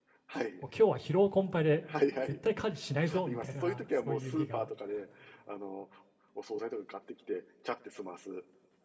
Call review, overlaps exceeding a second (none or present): present